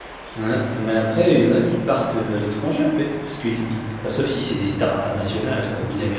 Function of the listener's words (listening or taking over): listening